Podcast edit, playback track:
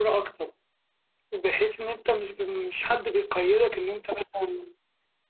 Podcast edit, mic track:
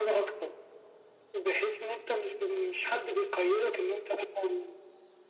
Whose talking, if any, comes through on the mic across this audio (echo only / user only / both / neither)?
echo only